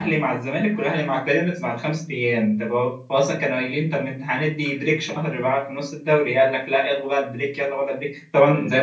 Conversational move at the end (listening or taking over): listening